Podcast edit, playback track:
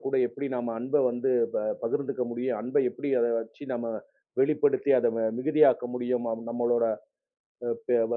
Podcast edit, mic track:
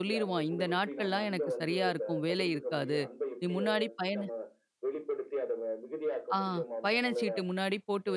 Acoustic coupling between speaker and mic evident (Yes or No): Yes